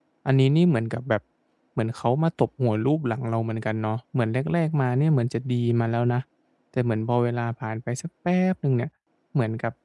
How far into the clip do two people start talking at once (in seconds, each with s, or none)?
none